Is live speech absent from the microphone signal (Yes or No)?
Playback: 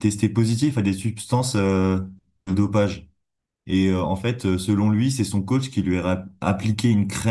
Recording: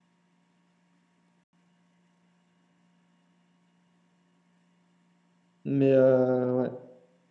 No